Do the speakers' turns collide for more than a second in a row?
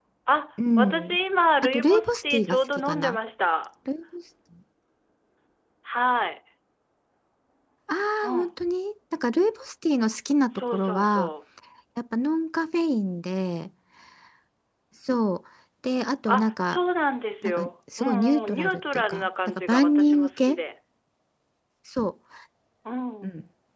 Yes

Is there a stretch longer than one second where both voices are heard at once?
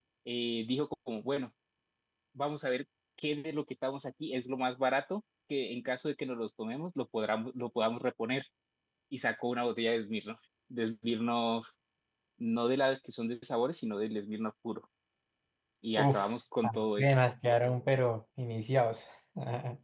No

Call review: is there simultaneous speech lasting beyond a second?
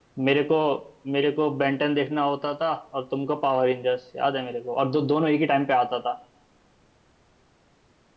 No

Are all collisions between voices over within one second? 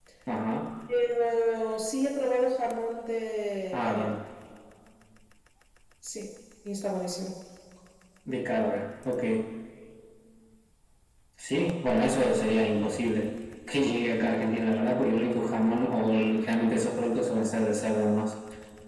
Yes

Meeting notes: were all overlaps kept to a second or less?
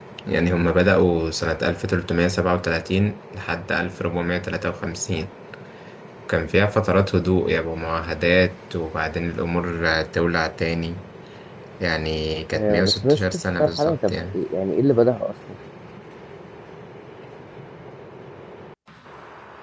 No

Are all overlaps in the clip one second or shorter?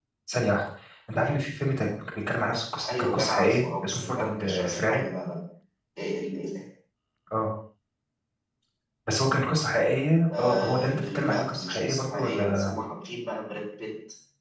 No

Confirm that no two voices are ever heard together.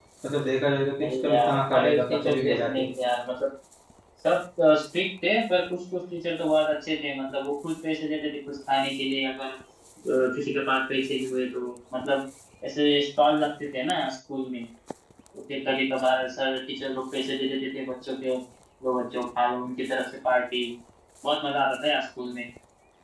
No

